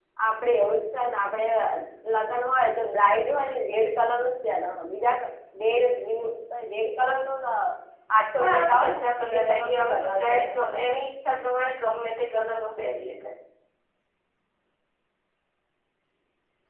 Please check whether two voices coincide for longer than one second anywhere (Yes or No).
Yes